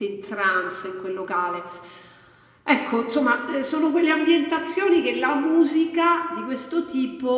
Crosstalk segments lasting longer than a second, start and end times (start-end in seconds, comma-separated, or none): none